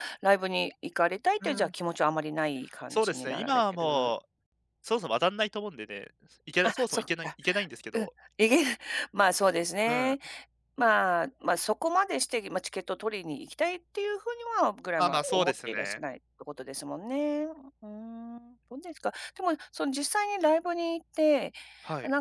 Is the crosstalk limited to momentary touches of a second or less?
No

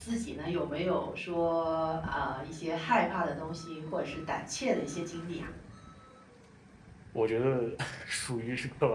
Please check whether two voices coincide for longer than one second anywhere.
No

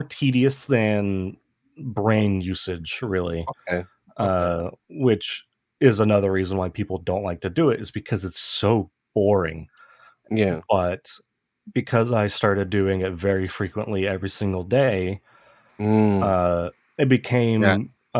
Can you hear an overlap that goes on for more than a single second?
No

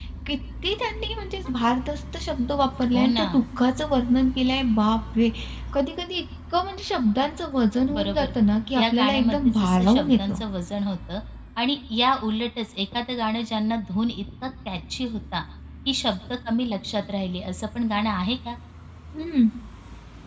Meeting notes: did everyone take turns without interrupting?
No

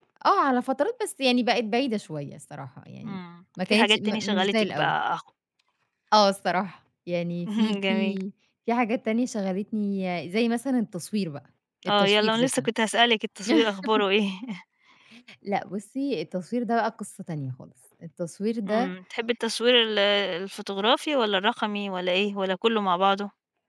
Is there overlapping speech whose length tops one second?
Yes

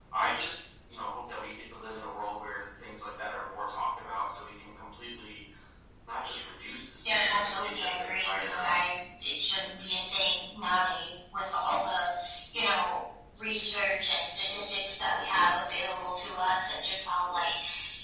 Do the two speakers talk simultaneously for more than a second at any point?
Yes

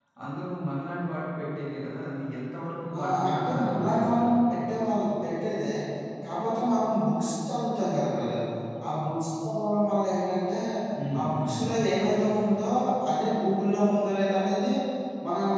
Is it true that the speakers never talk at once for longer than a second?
No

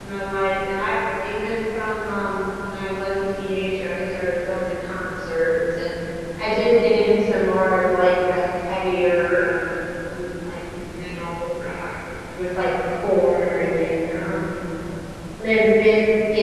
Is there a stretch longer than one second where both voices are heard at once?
No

